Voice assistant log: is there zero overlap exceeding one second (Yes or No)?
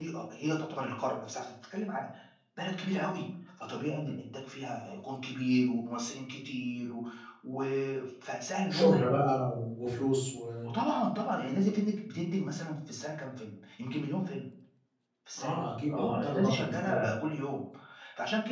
No